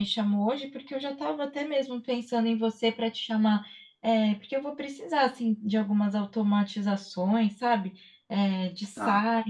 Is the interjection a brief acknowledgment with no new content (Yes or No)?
Yes